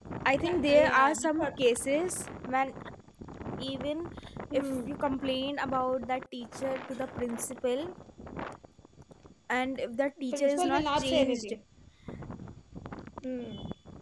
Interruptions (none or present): present